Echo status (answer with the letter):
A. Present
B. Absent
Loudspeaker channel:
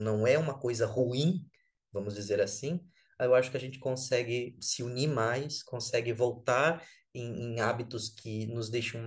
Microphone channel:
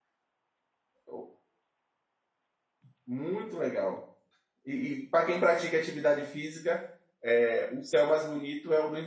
B